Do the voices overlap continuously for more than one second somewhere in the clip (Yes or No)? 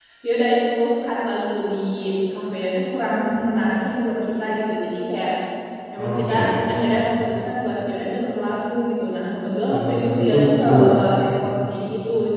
Yes